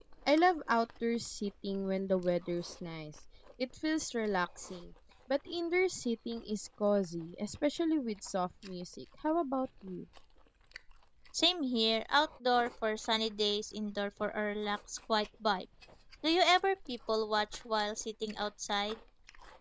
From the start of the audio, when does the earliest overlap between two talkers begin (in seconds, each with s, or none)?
none